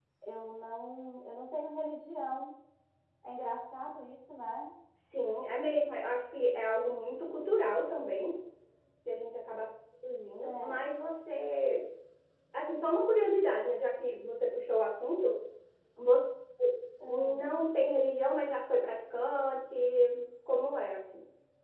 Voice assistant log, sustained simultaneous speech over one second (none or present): none